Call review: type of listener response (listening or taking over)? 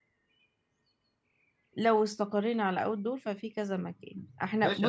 taking over